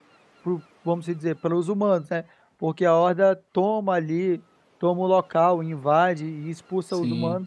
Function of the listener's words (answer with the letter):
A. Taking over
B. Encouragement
A